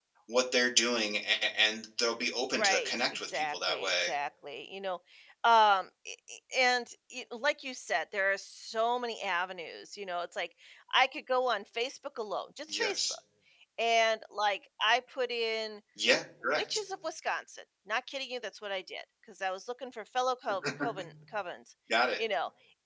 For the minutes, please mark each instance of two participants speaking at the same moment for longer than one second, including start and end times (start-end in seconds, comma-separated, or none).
2.6-4.1